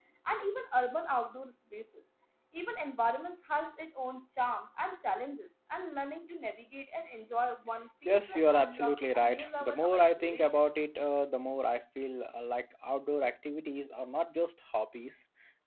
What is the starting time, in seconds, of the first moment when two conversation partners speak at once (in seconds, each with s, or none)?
8.1 s